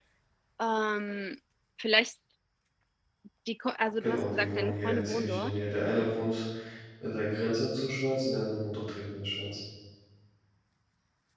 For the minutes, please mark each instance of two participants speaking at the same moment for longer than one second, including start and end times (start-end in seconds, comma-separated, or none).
4.0-5.5